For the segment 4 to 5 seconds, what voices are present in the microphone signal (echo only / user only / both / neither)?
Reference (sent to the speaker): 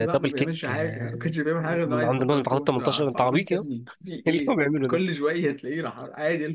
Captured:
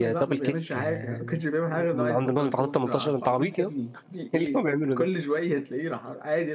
echo only